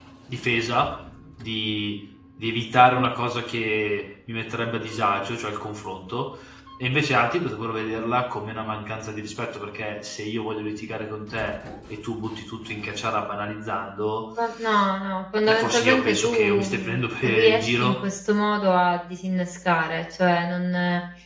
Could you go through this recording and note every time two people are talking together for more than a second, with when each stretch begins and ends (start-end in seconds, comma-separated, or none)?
15.5-17.9